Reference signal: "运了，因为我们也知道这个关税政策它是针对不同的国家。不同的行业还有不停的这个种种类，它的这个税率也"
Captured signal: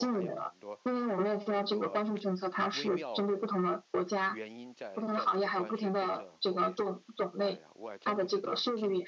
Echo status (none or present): present